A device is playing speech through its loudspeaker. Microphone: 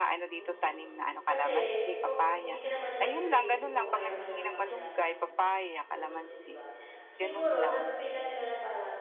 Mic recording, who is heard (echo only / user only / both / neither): both